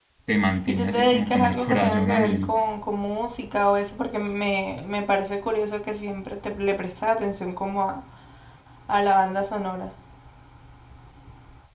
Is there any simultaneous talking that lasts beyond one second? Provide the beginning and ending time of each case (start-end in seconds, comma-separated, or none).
0.7-2.5